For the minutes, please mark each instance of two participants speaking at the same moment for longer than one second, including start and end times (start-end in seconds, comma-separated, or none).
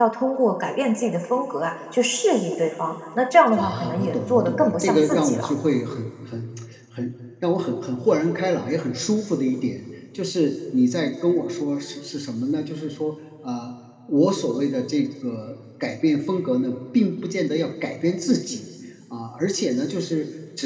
3.6-5.5